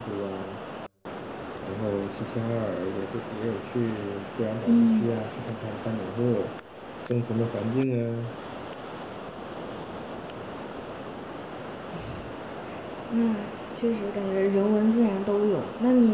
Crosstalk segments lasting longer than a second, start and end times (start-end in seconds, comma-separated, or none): none